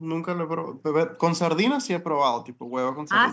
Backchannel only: No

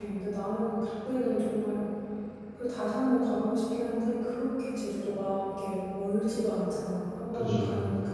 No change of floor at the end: Yes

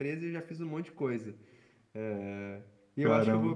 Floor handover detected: No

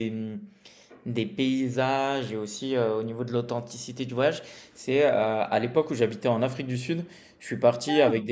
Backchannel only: Yes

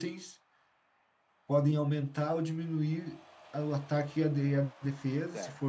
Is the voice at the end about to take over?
Yes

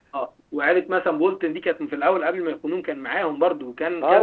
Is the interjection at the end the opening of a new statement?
Yes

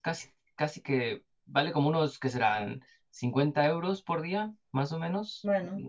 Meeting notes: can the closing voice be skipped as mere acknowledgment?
Yes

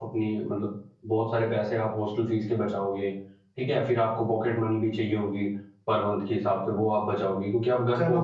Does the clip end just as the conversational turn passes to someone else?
Yes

